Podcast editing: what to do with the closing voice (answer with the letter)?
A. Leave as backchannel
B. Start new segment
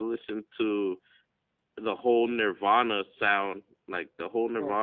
A